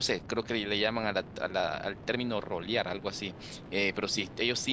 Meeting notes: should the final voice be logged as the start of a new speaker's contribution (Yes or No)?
No